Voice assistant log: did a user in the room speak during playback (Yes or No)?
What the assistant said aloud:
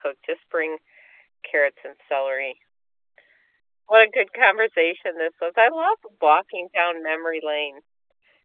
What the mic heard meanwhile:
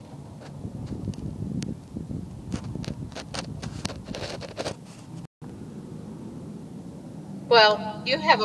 Yes